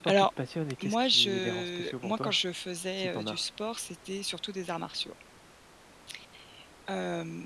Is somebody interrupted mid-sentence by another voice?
Yes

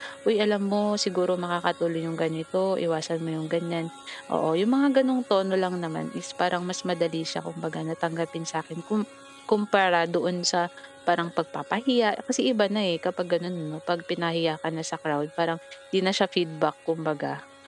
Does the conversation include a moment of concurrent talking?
No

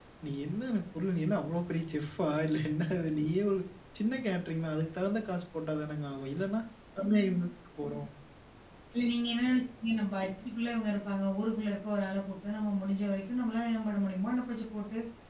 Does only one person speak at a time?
Yes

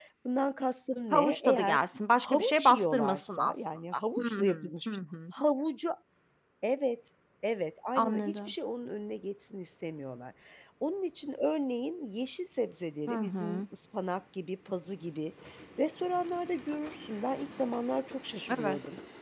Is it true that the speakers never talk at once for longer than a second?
No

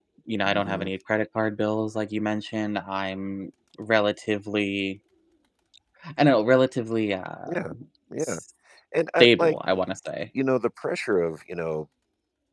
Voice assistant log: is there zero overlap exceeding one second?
Yes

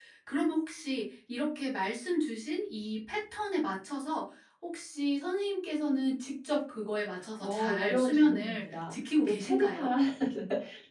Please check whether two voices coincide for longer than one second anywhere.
Yes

